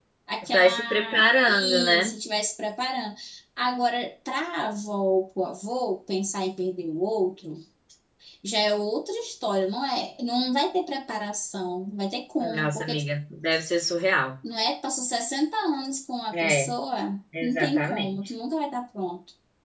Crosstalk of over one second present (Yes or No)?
Yes